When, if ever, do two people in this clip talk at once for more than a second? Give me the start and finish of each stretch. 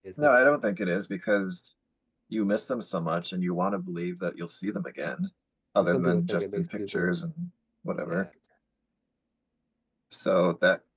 5.8-7.2

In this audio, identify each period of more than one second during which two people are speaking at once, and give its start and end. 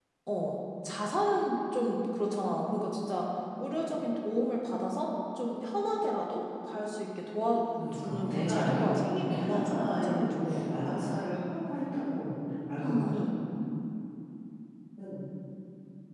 7.9-10.8

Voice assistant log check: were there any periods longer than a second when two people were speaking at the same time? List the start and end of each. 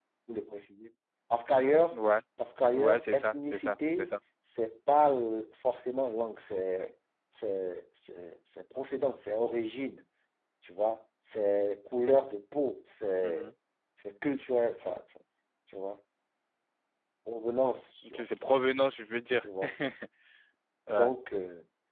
2.7-4.2

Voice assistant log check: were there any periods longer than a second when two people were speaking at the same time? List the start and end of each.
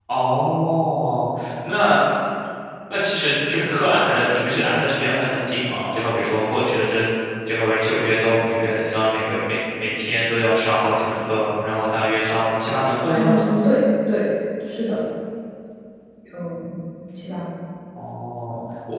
none

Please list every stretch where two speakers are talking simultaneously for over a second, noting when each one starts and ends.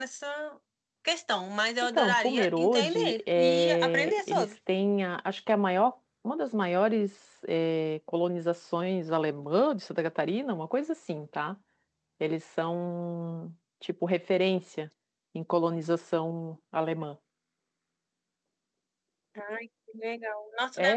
1.9-4.5

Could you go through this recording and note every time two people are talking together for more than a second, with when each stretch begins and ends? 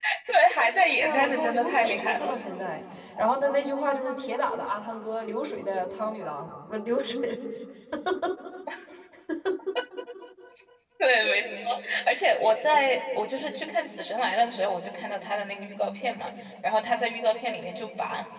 1.0-2.4

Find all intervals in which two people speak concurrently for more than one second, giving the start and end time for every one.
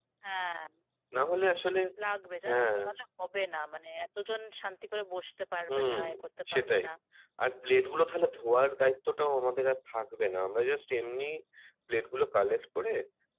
none

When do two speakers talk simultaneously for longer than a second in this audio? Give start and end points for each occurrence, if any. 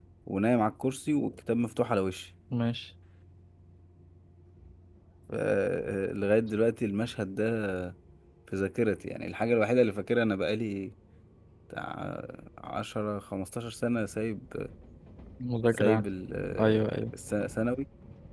none

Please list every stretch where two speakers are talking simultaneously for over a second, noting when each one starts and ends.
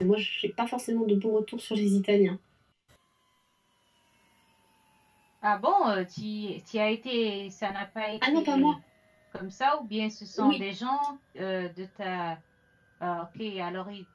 none

